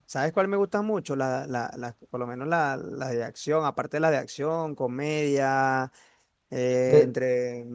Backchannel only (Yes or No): Yes